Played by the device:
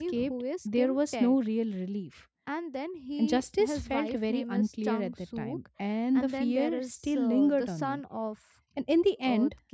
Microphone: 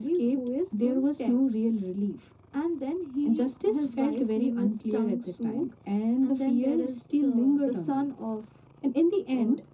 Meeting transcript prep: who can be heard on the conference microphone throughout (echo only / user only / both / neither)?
echo only